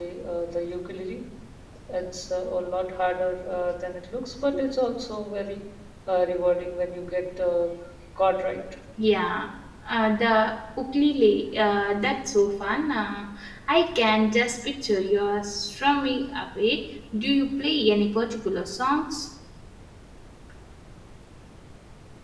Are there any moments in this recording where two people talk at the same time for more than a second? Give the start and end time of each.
none

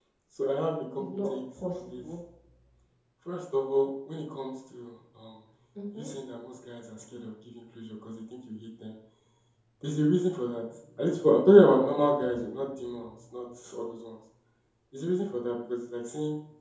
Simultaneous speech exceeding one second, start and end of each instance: 1.0-2.2

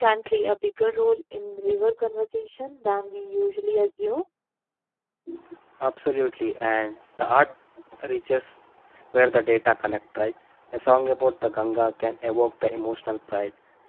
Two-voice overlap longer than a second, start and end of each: none

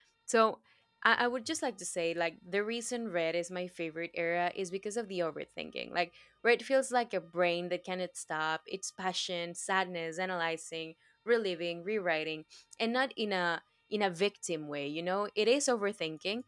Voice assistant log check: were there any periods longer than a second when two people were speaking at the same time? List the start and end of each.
none

